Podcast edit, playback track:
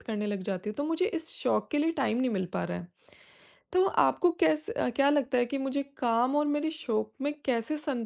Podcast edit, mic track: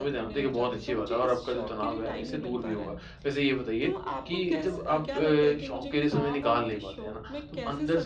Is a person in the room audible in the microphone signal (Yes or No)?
Yes